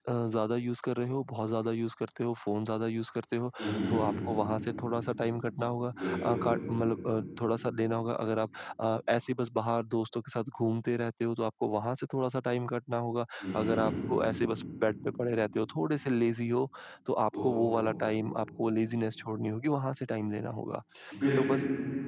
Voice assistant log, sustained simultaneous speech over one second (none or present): none